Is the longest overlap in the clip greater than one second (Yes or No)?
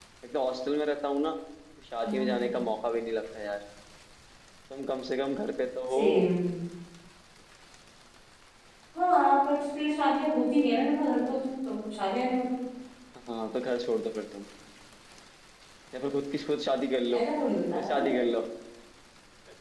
No